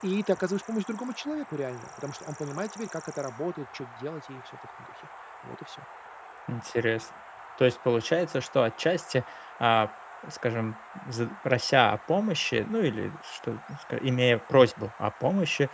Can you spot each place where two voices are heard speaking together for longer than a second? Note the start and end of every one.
none

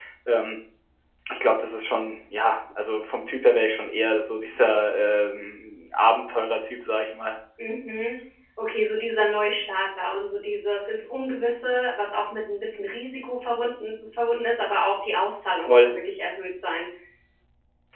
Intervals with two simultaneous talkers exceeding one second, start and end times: none

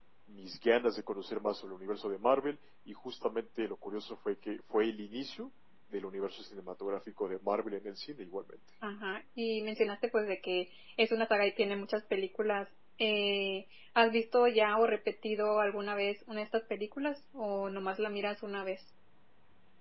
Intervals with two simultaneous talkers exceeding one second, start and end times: none

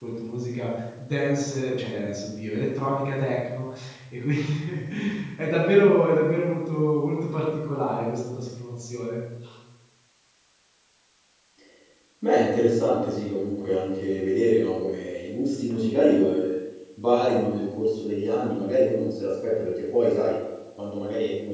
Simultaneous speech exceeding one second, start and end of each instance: none

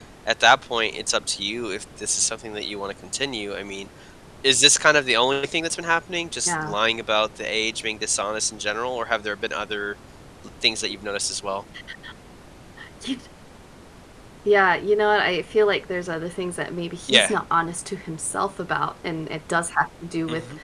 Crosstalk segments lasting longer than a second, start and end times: none

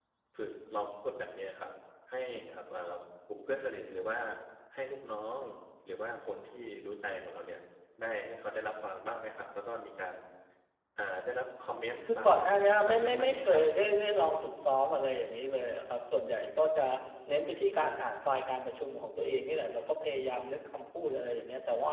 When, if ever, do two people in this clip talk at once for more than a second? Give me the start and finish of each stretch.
12.1-13.6

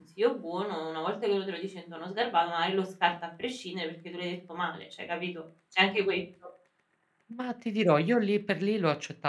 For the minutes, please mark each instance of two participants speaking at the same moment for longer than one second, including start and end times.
none

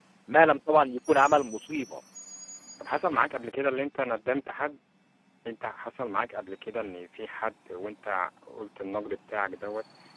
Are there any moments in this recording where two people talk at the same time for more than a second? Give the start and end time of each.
none

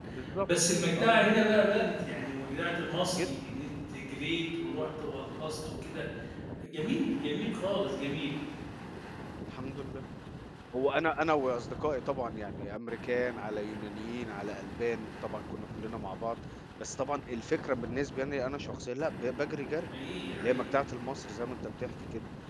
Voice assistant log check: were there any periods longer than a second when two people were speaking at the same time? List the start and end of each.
none

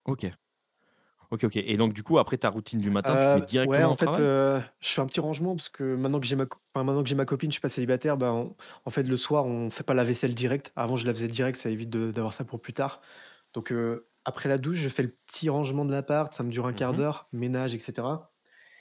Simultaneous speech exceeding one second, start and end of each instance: 3.0-4.3

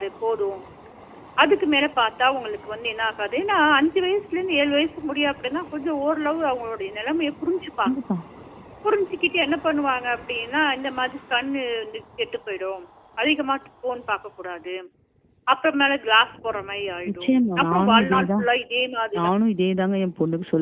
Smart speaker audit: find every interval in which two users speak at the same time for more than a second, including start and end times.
17.1-18.4

